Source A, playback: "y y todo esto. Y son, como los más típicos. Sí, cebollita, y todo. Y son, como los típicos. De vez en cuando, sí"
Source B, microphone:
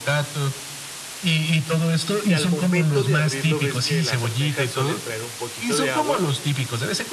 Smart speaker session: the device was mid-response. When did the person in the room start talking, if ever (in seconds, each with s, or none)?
2.2 s